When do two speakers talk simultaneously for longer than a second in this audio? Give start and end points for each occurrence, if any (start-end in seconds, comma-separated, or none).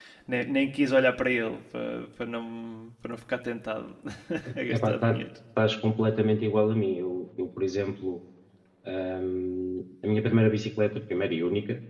none